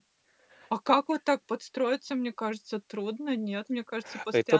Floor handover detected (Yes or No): Yes